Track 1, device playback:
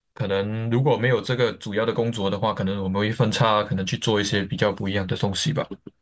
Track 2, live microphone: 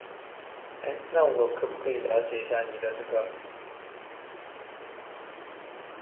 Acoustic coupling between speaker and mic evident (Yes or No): No